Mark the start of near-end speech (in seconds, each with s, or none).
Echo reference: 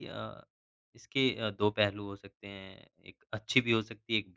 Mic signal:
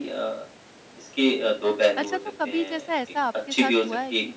2.0 s